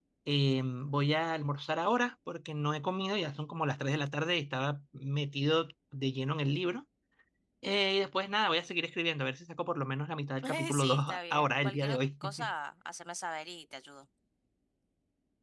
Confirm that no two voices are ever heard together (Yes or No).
No